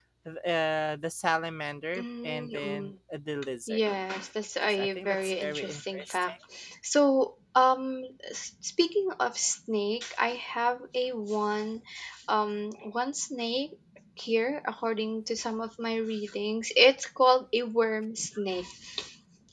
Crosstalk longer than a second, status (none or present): present